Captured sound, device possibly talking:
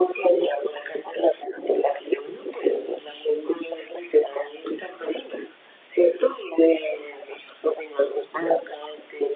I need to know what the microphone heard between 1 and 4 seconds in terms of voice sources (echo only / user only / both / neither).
echo only